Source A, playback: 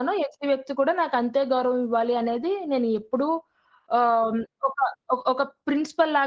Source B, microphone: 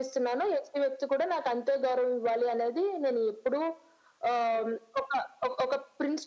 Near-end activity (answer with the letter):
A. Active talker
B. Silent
B